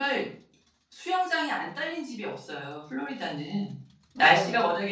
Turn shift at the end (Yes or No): Yes